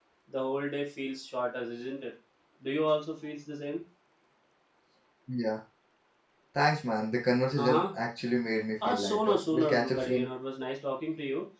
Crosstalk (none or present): present